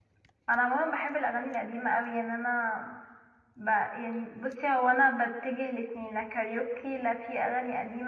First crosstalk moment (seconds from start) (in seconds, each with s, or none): none